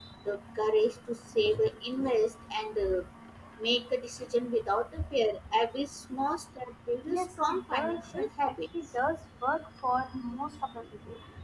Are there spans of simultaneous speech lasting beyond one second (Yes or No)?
Yes